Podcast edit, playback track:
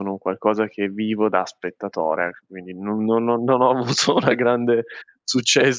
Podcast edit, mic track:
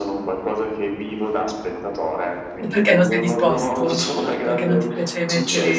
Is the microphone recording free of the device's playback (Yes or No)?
No